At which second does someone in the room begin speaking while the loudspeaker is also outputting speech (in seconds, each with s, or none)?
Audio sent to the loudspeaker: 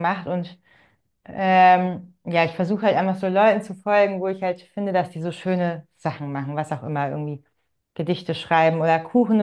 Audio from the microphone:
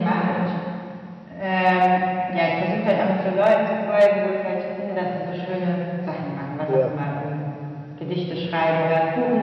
6.7 s